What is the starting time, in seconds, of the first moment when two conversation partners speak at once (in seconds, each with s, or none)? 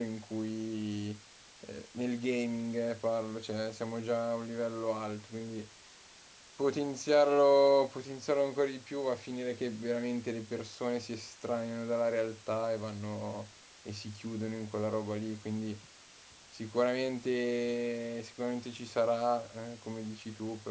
none